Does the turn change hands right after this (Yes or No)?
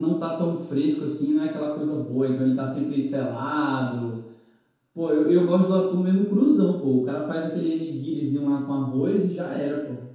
Yes